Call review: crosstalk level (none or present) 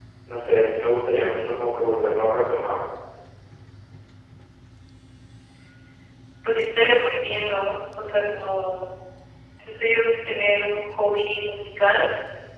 none